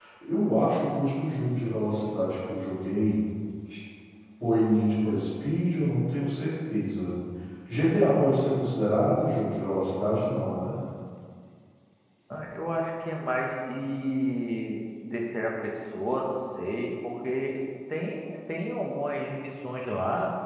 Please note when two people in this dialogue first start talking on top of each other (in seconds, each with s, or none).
none